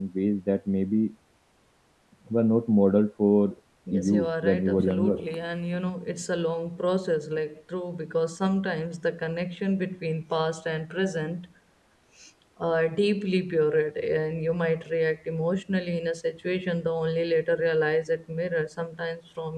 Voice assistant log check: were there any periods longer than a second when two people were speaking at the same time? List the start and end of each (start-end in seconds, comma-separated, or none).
3.9-5.2